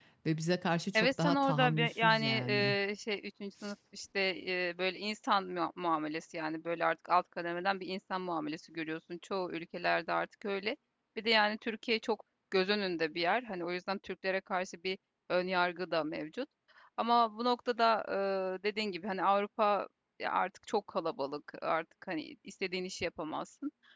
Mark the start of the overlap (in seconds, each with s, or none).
0.9 s